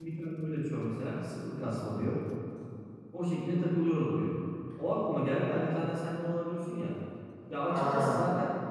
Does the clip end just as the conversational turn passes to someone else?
No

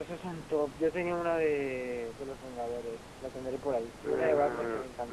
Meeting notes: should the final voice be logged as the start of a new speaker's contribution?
Yes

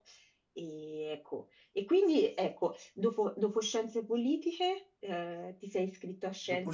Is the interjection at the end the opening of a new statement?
Yes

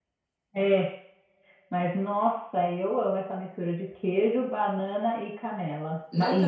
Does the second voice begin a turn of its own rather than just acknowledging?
Yes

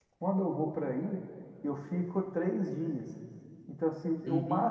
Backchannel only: Yes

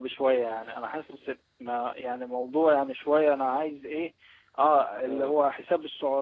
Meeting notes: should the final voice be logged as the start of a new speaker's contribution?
No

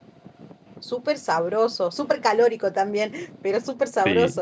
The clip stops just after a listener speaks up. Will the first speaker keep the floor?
No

